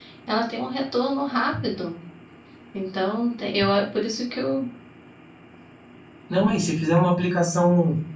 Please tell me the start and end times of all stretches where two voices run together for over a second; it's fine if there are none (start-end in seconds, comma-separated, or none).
none